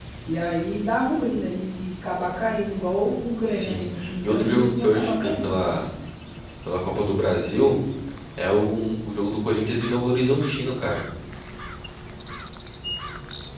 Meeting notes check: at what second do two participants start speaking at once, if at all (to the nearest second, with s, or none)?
3 s